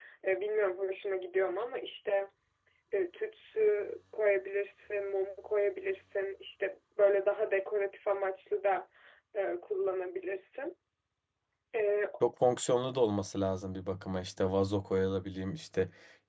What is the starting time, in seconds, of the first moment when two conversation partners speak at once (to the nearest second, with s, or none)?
none